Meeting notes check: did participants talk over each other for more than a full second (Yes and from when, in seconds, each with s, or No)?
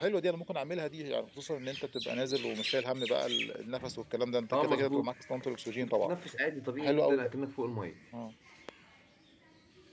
No